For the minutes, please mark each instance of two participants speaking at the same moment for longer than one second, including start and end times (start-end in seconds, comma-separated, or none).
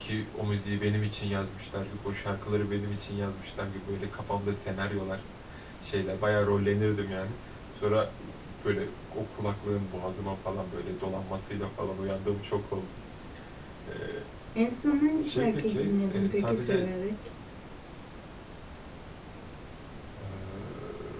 15.2-16.9